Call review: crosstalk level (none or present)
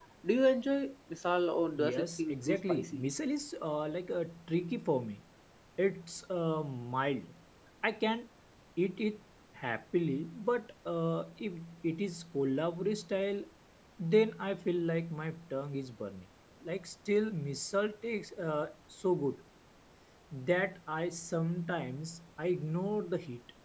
present